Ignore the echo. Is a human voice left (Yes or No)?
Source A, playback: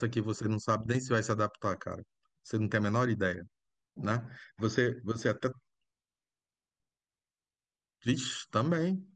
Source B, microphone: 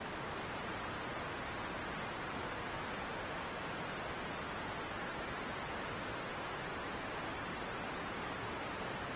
No